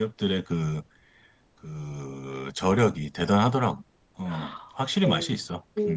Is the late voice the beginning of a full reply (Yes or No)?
Yes